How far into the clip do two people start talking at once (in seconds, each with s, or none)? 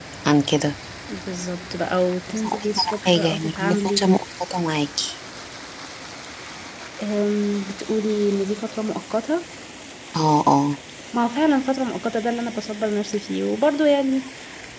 2.4 s